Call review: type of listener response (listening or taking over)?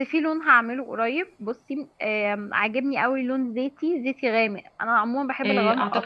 taking over